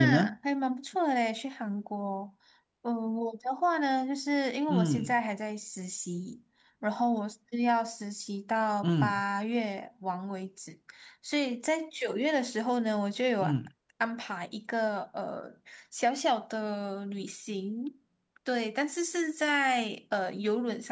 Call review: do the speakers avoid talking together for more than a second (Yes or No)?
Yes